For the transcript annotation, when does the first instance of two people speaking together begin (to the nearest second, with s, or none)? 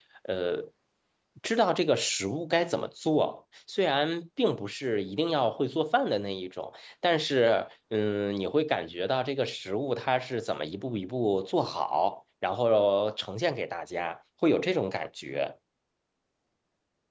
none